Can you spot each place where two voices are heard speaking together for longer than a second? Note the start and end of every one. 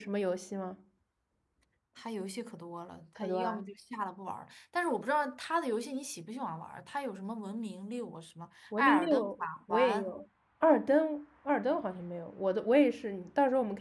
8.8-10.0

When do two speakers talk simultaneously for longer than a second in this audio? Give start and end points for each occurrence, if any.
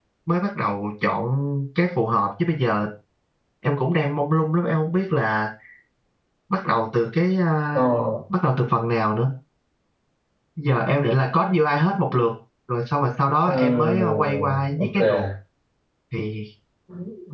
13.4-15.0

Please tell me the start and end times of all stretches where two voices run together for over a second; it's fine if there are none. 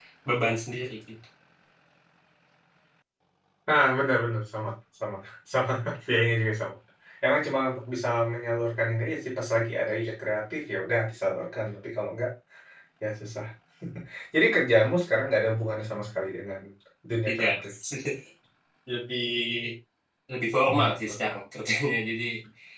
none

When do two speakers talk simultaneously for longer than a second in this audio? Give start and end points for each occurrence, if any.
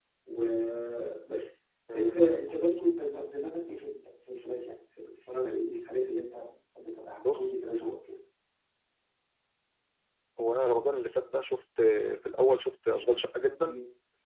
none

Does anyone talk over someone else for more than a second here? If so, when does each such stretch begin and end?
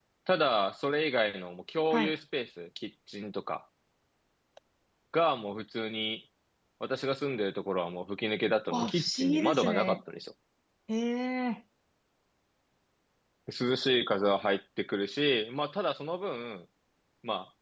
8.7-10.0

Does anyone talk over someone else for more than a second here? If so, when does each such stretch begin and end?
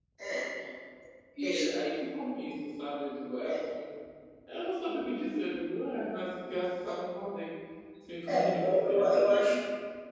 8.3-9.6

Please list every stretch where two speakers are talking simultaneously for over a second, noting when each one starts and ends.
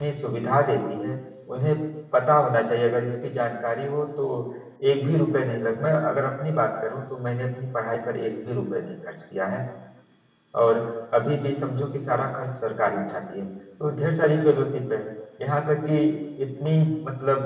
none

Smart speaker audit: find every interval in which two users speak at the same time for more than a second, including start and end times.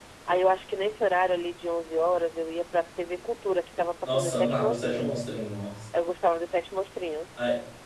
4.0-5.4

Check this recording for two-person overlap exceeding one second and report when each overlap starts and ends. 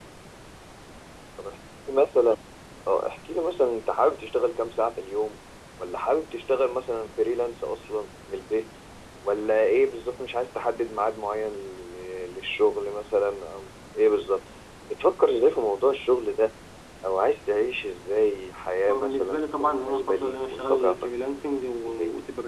18.9-21.1

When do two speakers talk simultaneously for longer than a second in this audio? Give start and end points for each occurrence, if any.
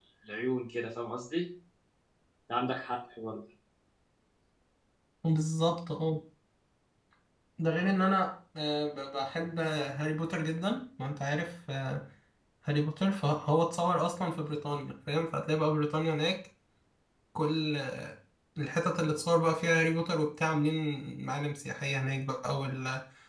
none

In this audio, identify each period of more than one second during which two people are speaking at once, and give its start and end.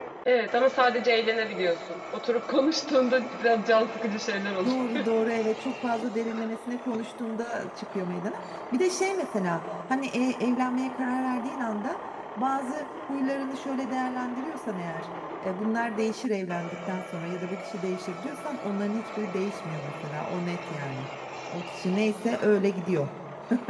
none

